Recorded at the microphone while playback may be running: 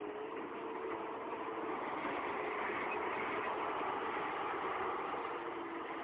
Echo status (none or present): none